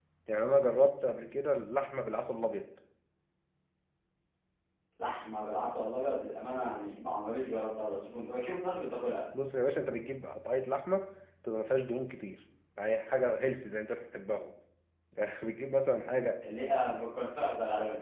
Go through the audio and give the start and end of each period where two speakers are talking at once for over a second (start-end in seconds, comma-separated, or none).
none